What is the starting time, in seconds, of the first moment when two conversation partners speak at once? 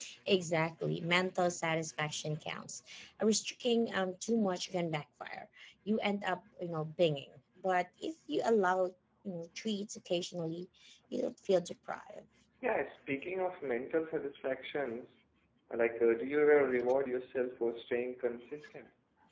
none

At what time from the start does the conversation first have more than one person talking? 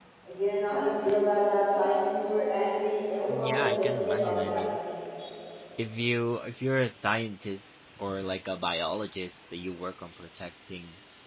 3.3 s

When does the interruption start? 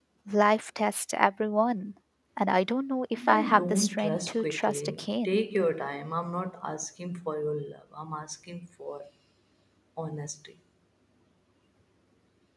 3.2 s

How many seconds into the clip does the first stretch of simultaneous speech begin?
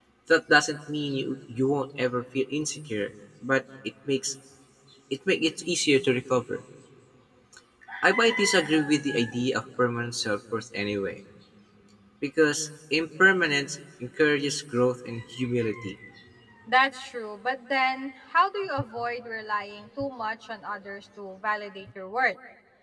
none

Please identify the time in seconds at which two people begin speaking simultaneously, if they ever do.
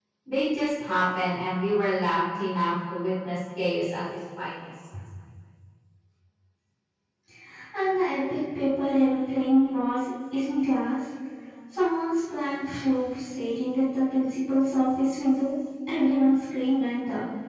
none

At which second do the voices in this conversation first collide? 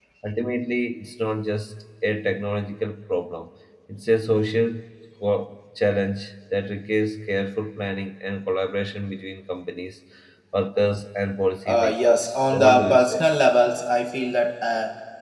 11.6 s

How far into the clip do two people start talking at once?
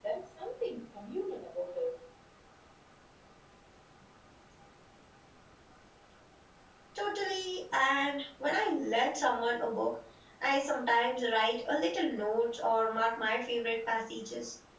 none

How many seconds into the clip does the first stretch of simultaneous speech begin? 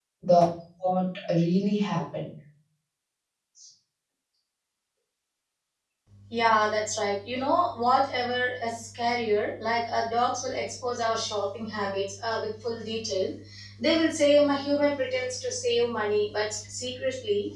none

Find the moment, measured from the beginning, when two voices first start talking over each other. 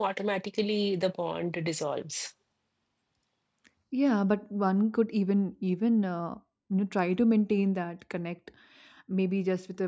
none

